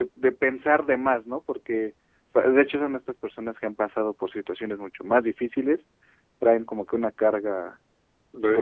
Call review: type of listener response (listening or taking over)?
taking over